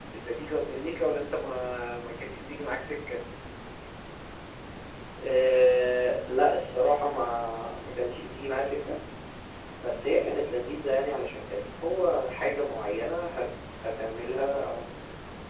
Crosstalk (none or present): none